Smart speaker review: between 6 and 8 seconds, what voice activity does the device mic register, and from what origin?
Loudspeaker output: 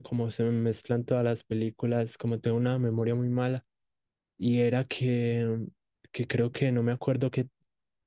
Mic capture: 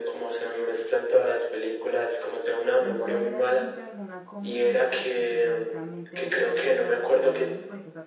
both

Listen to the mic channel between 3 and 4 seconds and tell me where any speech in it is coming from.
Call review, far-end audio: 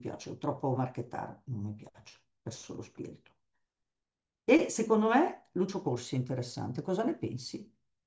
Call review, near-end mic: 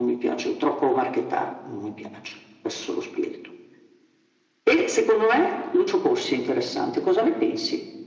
echo only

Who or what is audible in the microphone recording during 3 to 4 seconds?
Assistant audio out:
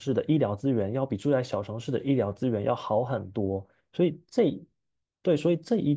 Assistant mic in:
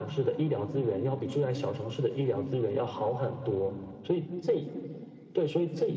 echo only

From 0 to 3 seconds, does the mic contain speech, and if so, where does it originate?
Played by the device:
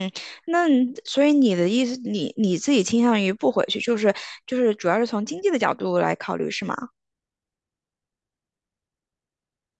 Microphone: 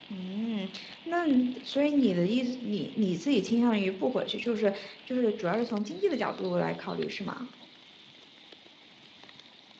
echo only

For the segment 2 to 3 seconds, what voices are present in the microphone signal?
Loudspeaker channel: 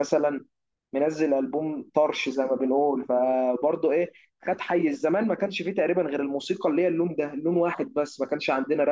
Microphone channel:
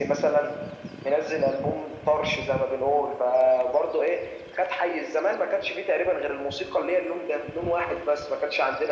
echo only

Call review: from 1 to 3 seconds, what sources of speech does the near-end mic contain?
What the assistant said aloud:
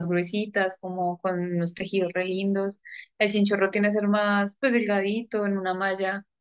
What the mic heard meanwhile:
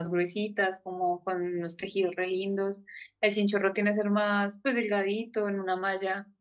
echo only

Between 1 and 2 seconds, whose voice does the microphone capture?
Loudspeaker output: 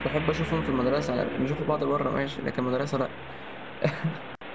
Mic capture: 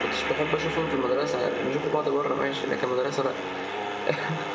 echo only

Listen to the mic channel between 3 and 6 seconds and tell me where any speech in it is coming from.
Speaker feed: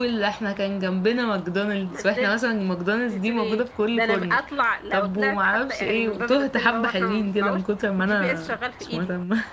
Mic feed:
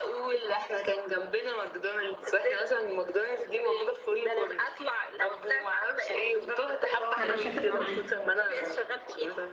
echo only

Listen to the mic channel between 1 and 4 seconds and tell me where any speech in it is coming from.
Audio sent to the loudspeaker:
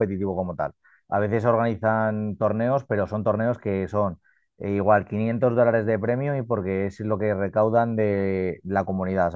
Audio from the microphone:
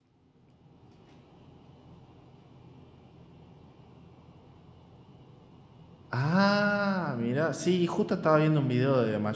neither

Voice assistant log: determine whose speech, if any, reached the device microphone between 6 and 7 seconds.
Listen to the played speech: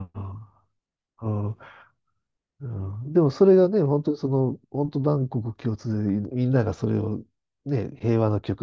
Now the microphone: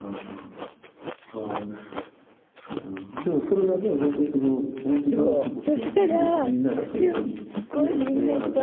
both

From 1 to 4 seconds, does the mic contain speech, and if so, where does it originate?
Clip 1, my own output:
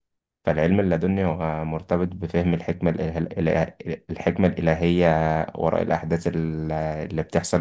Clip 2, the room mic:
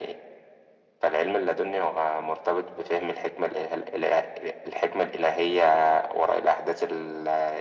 echo only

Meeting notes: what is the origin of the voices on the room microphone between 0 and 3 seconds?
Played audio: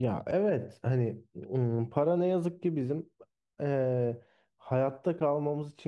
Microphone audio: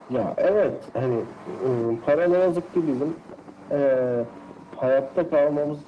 echo only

